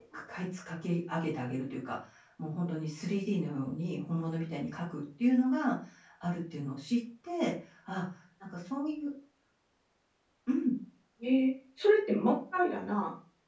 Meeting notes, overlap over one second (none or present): none